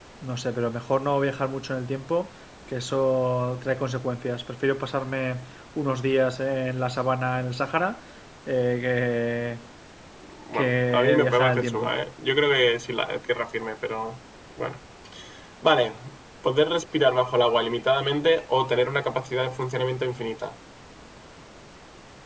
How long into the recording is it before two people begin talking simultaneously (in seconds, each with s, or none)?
10.5 s